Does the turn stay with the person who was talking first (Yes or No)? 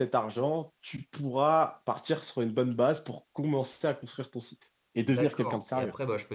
No